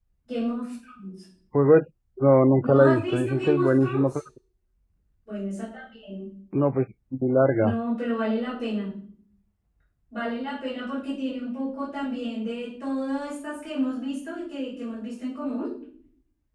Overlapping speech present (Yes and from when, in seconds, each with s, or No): Yes, from 2.6 s